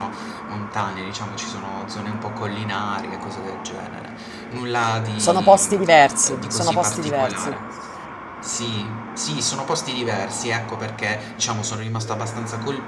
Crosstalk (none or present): present